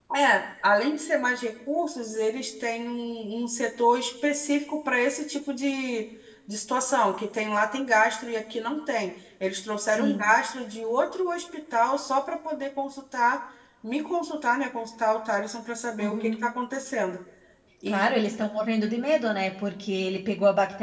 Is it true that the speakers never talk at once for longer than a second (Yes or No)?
Yes